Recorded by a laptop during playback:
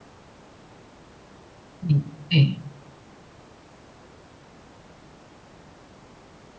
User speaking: Yes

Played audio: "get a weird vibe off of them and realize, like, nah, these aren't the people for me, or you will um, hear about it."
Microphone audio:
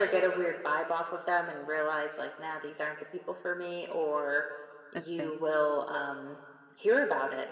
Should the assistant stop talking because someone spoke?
Yes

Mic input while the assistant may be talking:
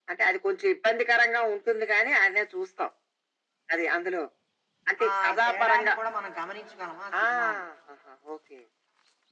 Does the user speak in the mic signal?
Yes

